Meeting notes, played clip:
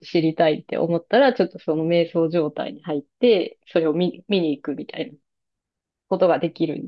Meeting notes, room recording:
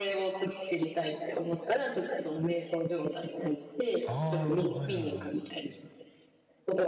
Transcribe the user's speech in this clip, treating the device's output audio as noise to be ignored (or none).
ああ、はいはいはい。